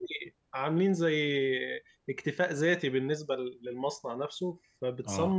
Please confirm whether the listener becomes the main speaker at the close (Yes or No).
No